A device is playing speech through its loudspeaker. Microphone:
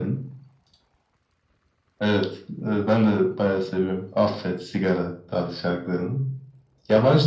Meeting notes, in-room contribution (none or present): none